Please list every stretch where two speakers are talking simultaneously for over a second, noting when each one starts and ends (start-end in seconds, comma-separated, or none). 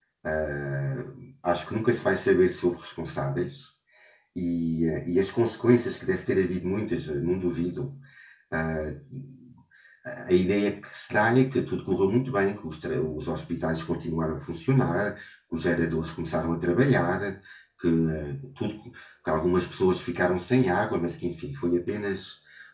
none